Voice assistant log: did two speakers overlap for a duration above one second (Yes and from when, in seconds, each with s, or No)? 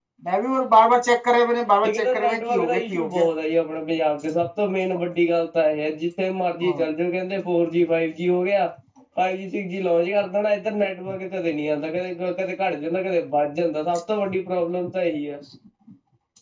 Yes, from 1.8 s